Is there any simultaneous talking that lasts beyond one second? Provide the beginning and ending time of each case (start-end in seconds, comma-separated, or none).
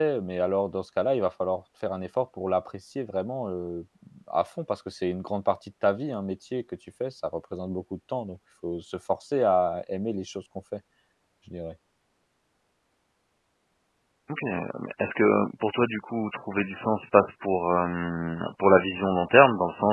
none